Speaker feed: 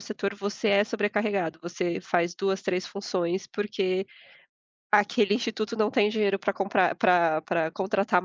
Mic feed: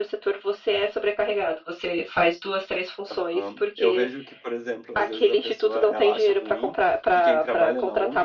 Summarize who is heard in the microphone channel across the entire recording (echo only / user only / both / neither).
both